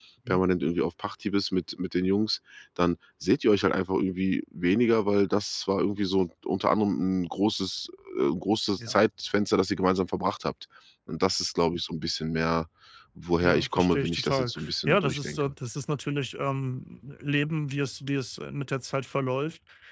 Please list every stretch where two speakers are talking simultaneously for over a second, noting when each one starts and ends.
13.4-15.5

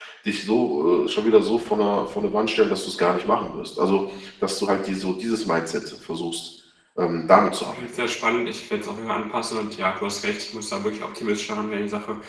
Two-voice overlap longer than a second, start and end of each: none

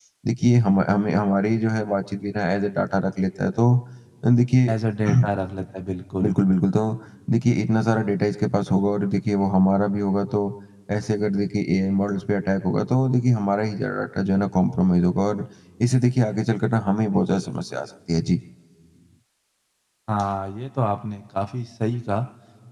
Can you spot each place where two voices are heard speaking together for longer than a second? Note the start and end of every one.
none

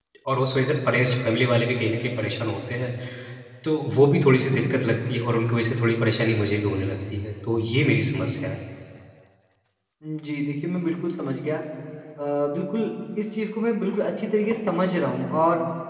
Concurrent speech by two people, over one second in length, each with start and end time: none

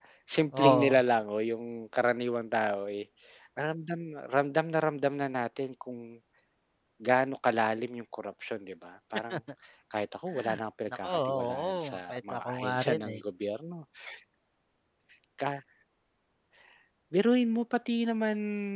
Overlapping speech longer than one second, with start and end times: 11.0-13.2

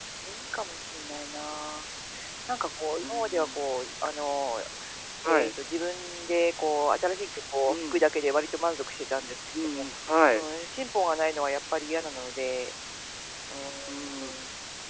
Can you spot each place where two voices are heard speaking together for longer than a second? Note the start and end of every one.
none

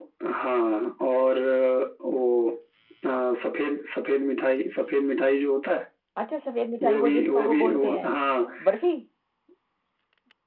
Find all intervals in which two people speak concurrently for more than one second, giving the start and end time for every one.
6.8-8.1

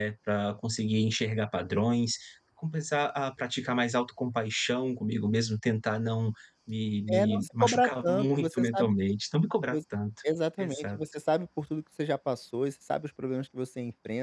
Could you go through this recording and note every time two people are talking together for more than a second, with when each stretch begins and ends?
7.1-8.9

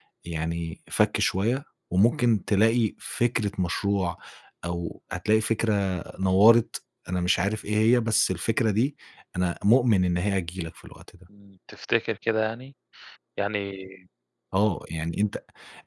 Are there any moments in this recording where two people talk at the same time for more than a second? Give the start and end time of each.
none

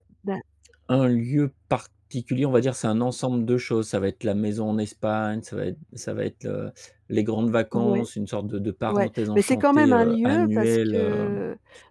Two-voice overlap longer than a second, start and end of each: 8.9-11.4

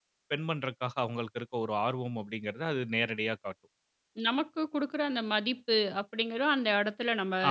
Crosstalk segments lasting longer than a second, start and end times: none

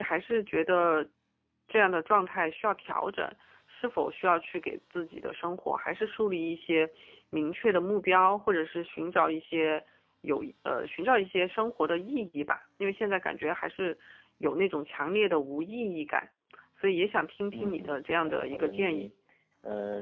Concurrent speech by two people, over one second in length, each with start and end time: 17.5-19.1

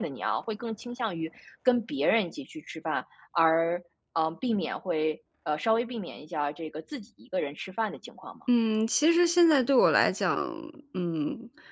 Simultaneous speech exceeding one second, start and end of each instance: none

